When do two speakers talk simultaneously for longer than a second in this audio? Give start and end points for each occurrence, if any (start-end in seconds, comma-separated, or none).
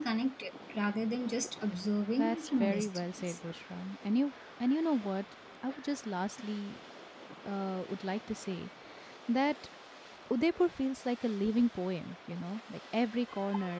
2.2-3.4